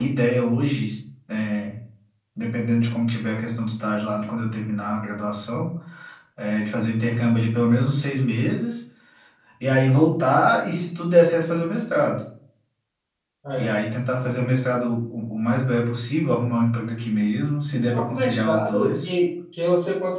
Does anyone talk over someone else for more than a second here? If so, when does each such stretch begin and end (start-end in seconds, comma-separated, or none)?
17.8-19.2